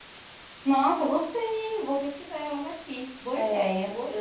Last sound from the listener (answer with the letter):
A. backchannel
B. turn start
B